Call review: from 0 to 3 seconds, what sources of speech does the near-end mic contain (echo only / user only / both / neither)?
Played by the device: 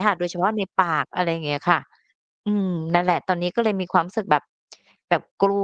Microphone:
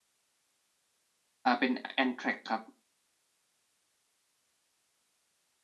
user only